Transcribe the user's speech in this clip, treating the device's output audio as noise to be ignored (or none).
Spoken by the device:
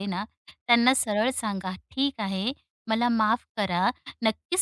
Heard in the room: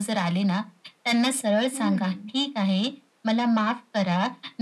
हं.